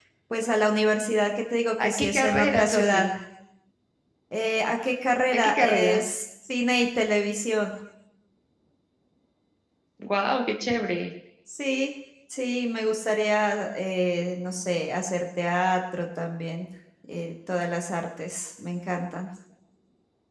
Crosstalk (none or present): present